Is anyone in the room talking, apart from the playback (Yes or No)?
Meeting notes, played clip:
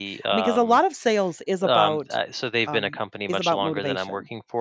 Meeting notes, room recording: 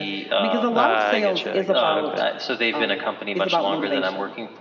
Yes